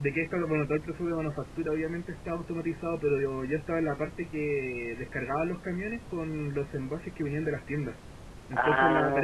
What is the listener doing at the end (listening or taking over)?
listening